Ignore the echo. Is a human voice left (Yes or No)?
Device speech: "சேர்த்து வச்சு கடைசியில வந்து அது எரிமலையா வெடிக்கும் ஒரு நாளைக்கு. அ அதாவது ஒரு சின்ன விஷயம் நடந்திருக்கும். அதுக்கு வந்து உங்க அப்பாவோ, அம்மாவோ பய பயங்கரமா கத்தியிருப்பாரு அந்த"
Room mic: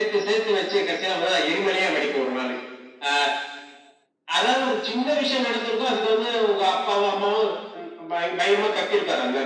No